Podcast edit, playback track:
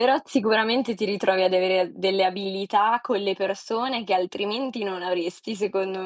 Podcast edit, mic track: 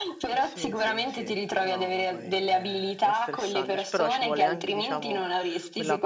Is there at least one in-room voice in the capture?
Yes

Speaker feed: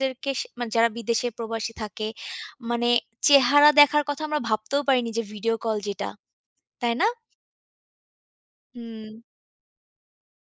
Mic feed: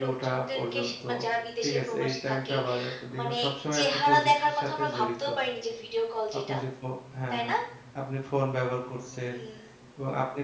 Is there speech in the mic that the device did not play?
Yes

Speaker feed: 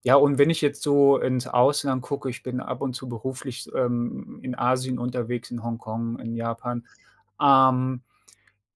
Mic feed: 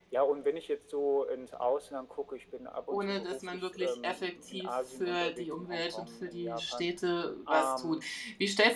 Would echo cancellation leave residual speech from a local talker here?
Yes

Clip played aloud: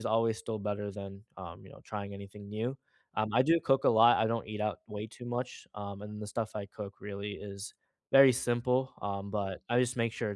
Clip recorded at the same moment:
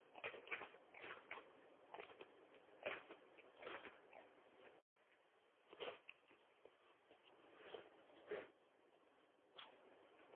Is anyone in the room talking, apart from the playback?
No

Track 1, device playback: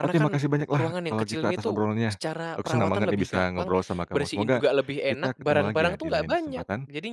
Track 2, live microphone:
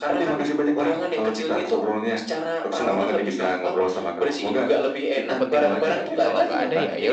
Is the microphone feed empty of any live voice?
No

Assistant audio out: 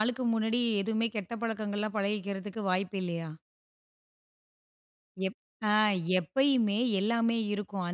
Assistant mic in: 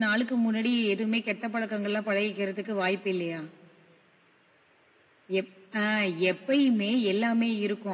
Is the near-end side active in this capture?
No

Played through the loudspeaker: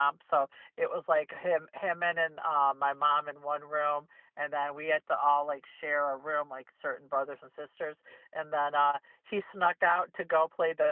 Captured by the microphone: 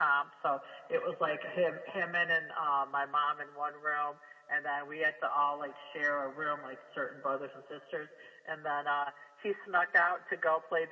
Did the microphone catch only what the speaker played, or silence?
Yes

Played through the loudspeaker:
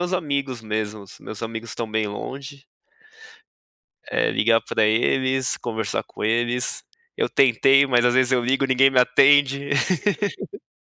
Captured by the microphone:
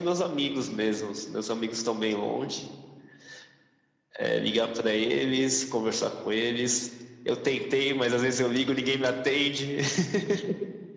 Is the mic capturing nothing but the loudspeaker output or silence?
Yes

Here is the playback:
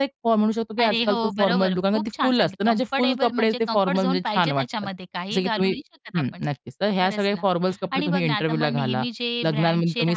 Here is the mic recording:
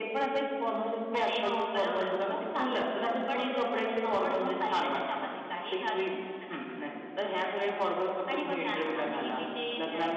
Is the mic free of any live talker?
Yes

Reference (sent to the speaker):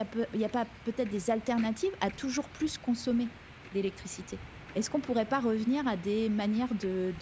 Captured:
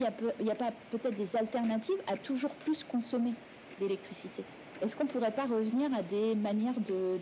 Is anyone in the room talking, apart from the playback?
No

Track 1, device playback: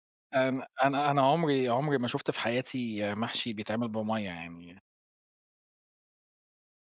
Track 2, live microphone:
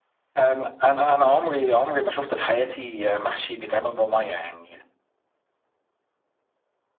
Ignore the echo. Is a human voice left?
No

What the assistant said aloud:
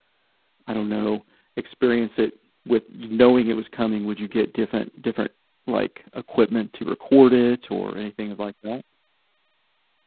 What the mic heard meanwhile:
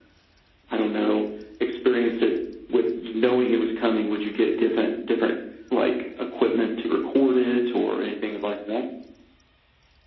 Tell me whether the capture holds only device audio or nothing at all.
Yes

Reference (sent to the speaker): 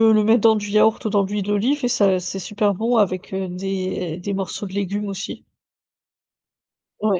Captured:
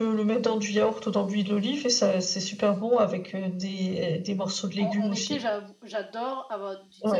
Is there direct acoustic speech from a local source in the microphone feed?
Yes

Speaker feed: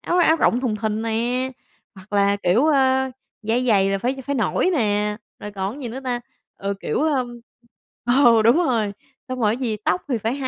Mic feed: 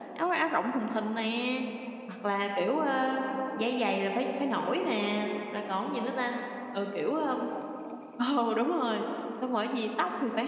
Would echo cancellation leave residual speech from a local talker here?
No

